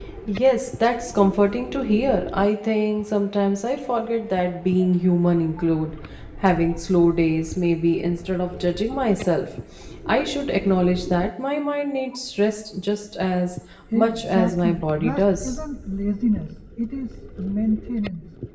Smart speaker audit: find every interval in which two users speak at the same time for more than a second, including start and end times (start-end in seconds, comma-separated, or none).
13.9-15.6